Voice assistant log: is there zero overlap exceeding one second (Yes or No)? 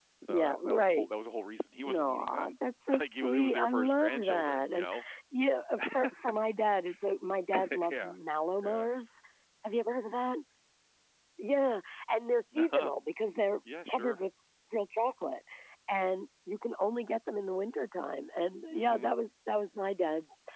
No